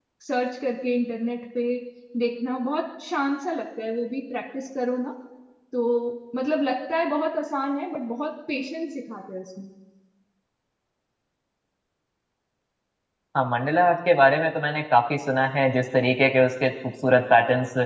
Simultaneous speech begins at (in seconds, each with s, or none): none